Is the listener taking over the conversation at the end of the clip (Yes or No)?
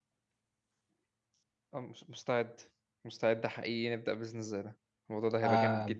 Yes